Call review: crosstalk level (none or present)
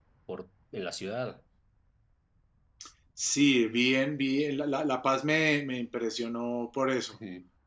none